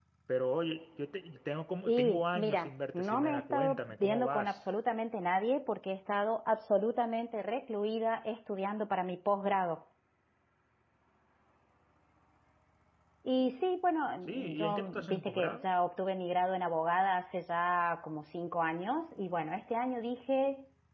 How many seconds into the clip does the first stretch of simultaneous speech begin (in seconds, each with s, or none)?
1.8 s